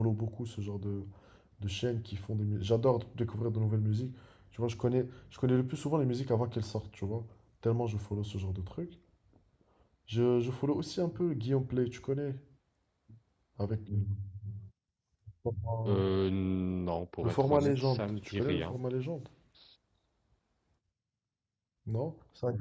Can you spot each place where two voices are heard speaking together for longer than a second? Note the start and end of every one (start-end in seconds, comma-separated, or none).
17.2-18.8